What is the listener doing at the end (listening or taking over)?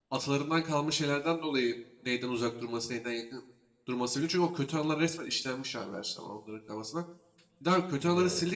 listening